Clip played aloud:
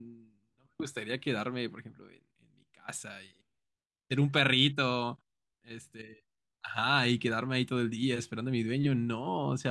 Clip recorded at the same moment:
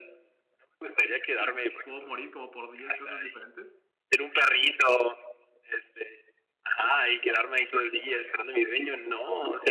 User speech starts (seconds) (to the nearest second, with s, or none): 2 s